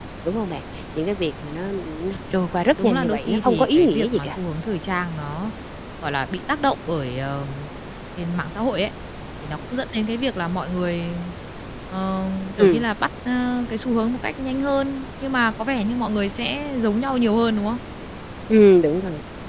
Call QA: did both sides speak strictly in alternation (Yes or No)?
No